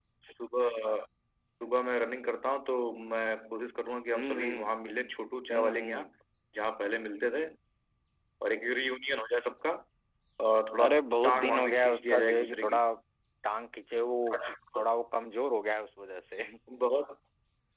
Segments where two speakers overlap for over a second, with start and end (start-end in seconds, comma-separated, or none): 11.2-12.8